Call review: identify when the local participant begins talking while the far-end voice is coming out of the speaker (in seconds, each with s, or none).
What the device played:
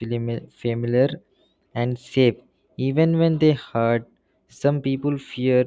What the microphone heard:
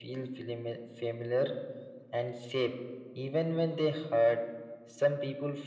none